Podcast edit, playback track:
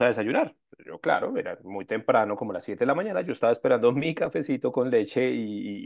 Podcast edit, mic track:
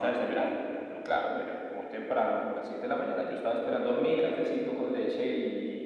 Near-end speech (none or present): none